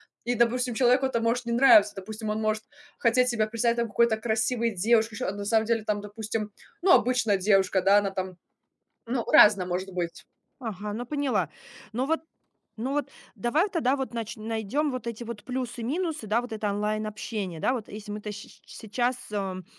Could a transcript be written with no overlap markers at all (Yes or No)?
Yes